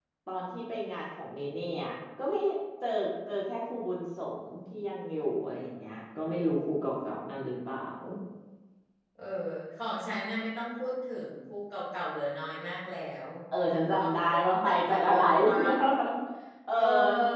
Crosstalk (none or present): present